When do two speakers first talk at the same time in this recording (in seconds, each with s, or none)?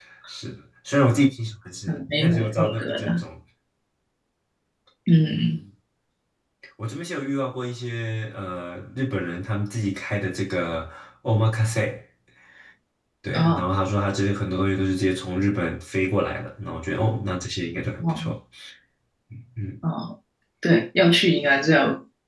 1.9 s